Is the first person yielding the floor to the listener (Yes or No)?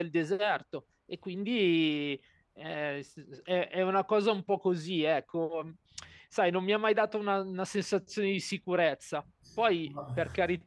No